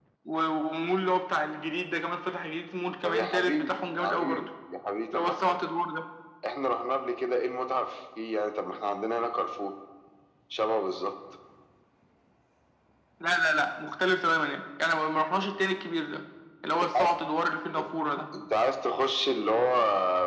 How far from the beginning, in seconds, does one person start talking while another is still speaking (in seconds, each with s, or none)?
3.0 s